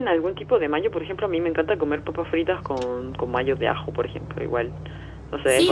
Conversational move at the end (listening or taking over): taking over